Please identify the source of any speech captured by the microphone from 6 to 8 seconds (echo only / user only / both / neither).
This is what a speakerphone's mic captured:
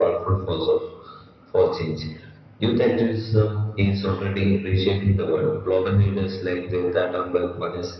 echo only